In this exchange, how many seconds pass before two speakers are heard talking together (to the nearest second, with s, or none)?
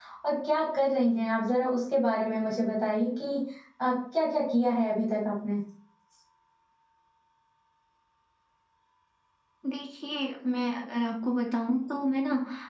none